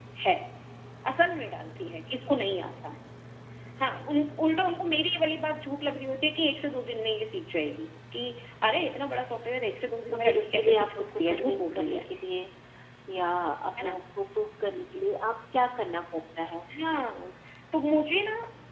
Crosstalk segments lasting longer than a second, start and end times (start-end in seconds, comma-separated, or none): 10.1-12.0